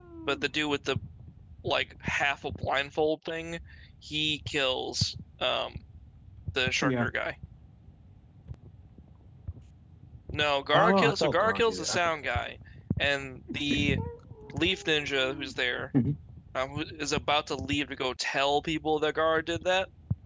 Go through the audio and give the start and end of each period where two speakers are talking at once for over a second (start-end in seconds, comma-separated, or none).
10.7-12.2